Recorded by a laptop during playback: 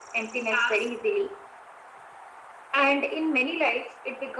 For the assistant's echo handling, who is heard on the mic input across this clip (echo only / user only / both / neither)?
both